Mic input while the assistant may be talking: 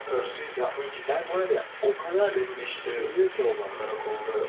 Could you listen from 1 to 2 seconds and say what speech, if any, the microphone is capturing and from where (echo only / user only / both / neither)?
both